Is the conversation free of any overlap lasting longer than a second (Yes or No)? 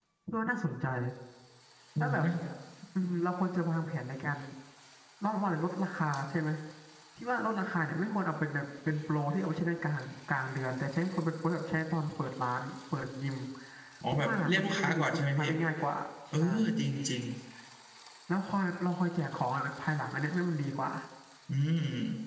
No